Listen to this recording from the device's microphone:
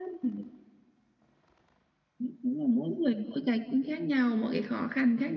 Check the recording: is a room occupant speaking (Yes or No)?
No